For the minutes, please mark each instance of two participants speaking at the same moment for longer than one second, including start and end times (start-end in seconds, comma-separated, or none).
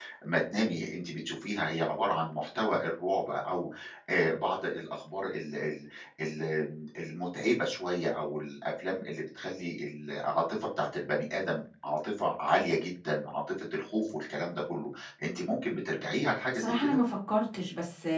none